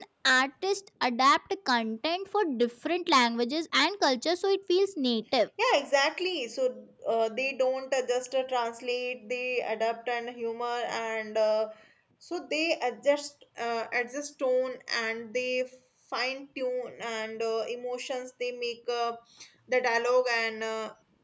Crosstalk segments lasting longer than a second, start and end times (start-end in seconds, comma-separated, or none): none